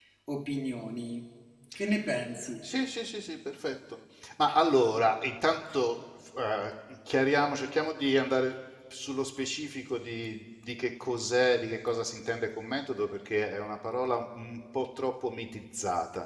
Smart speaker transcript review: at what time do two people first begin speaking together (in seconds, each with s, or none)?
none